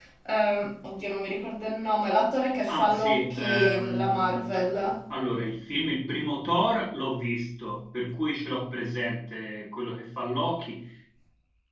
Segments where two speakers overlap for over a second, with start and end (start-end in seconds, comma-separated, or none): 2.7-4.9